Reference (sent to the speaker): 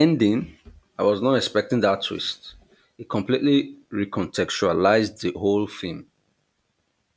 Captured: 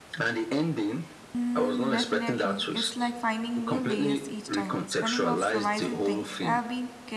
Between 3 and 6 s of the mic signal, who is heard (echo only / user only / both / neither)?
both